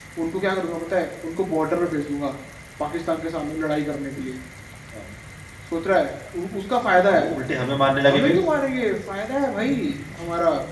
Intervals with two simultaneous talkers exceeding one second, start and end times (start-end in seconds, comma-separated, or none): none